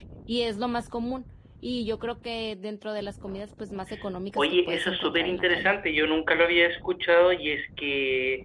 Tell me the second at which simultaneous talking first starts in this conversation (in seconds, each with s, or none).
4.4 s